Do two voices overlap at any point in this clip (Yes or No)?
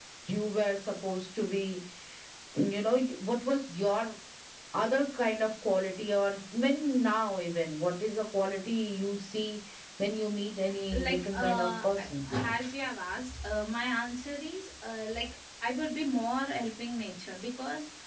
Yes